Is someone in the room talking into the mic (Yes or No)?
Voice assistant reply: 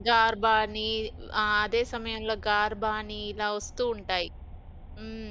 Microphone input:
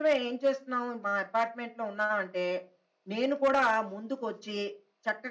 Yes